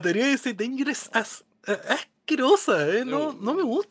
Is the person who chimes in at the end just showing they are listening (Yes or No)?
No